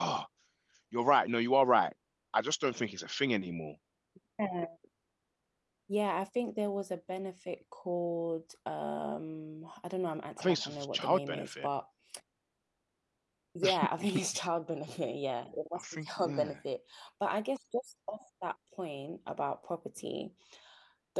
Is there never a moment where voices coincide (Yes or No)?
No